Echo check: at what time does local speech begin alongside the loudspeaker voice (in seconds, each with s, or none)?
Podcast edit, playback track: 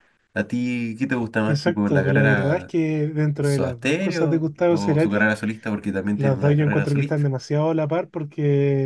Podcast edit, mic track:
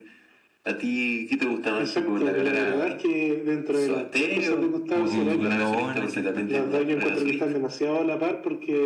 4.9 s